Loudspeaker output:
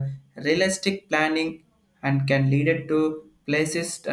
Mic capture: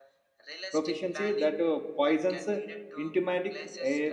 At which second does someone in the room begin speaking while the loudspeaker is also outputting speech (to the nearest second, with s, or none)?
1 s